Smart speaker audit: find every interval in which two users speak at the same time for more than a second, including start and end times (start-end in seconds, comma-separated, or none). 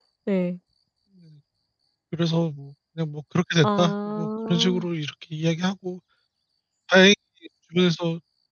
3.6-4.8